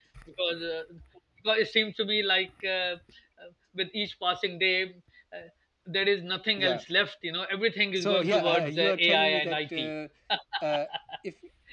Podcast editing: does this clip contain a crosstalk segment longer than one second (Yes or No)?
Yes